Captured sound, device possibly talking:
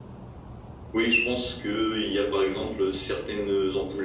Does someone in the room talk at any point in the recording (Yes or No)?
No